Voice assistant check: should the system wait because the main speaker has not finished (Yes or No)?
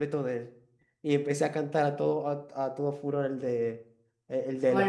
No